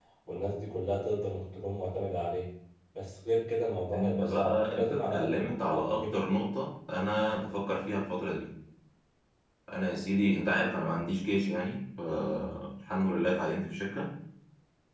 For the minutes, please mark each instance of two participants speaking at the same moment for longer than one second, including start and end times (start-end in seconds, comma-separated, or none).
3.9-6.0